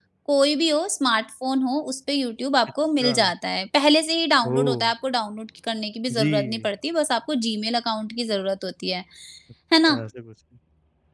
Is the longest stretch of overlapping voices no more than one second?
Yes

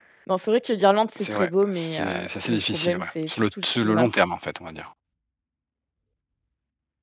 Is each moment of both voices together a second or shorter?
No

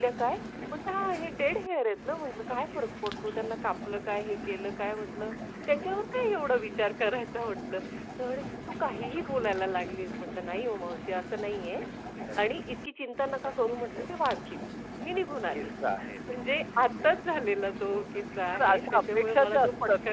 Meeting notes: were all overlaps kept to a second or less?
No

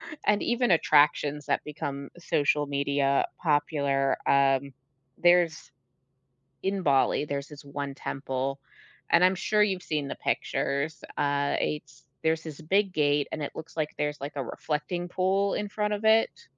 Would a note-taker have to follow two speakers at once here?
No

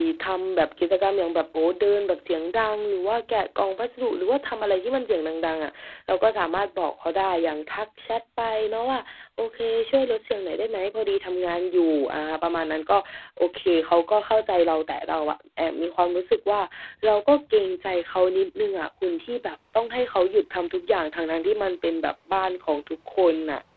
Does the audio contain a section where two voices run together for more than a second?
No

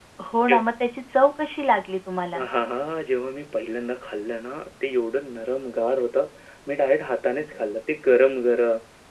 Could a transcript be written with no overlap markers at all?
Yes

